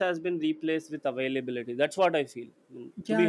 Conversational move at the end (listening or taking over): taking over